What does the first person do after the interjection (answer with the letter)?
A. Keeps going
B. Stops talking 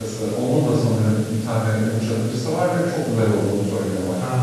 B